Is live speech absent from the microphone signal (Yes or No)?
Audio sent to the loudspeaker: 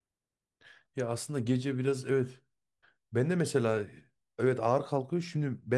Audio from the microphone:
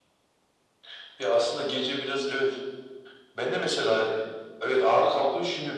Yes